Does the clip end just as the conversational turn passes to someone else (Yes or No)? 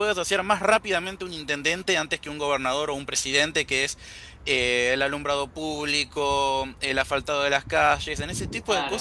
No